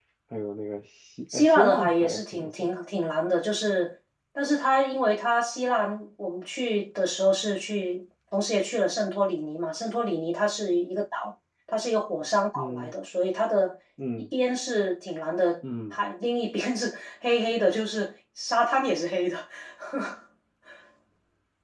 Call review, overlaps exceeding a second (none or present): present